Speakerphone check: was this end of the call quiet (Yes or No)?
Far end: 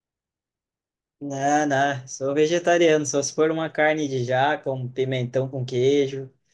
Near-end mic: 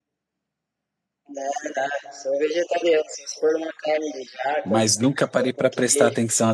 No